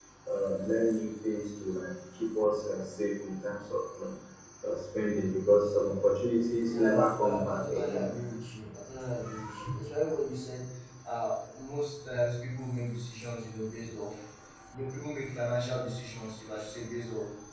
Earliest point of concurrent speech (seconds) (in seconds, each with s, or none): 6.7 s